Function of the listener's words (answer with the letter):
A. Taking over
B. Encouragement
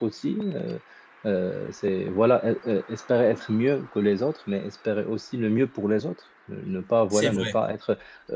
B